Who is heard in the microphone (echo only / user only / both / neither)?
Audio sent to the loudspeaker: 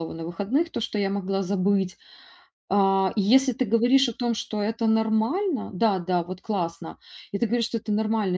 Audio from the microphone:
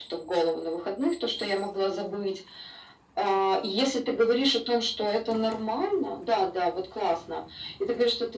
echo only